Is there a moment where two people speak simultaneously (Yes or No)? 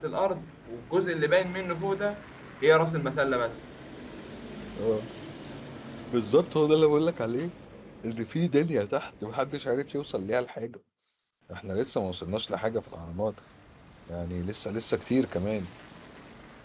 No